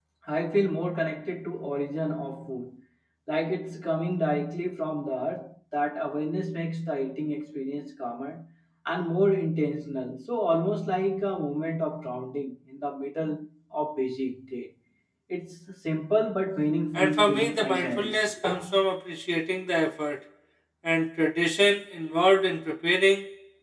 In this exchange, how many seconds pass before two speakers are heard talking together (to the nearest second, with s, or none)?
17 s